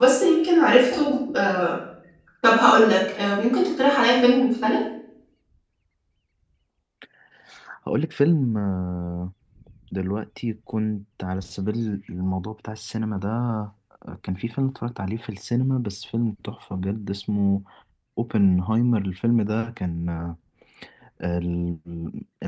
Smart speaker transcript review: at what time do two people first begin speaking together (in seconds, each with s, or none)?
none